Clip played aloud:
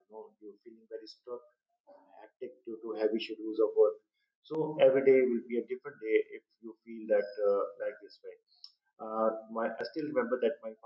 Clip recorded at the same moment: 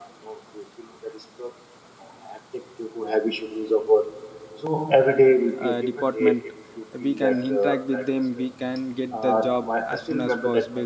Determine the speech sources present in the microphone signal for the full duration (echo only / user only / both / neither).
both